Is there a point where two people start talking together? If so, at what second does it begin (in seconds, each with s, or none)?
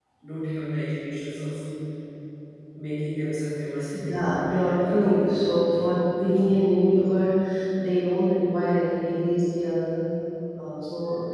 3.9 s